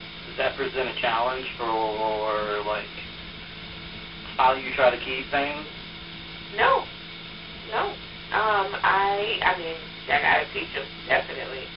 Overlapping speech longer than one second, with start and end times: none

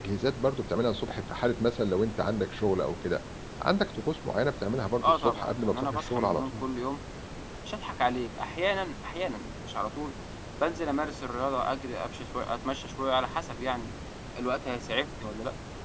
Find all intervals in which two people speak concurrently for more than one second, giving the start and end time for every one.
5.0-6.6

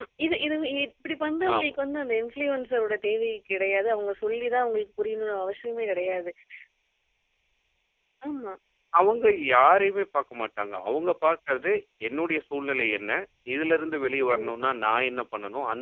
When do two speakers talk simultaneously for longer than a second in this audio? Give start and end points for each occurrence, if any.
none

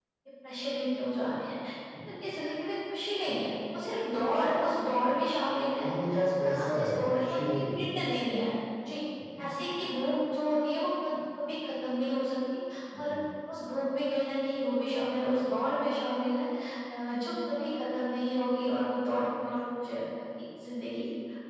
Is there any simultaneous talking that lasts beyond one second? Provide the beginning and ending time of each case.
6.4-7.8

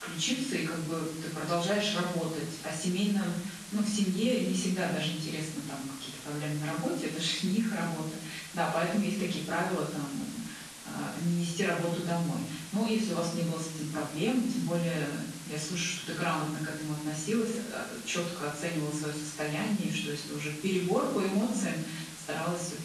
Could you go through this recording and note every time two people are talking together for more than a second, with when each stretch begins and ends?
none

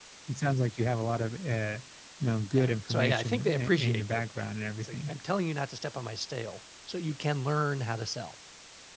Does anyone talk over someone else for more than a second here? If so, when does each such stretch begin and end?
2.5-4.2

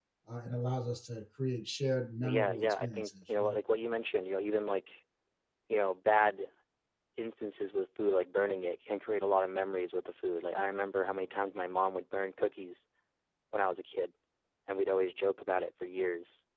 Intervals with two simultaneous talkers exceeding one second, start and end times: 2.2-3.5

